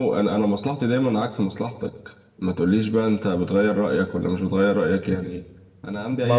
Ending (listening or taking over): taking over